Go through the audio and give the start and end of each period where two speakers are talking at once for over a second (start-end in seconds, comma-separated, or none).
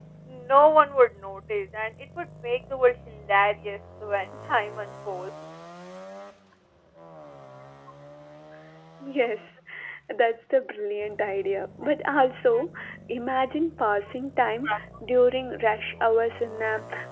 none